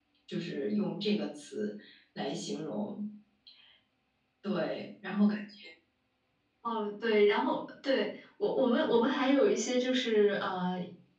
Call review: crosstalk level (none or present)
none